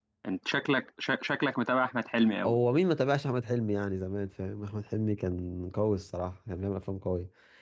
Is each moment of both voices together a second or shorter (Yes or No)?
Yes